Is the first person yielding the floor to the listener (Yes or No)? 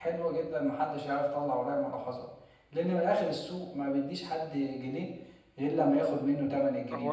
Yes